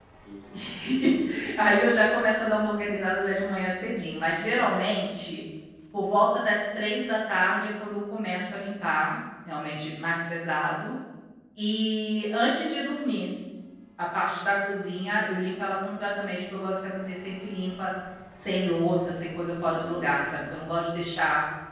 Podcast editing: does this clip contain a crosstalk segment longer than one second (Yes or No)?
No